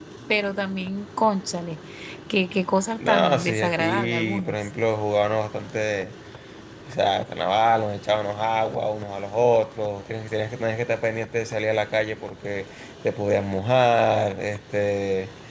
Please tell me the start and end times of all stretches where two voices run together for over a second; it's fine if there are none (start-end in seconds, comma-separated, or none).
3.1-4.6